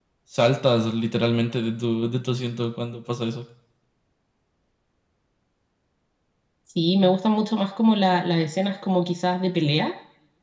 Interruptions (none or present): none